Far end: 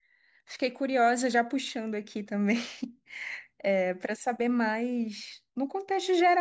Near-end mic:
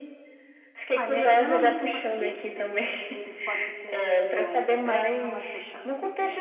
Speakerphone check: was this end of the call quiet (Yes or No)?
No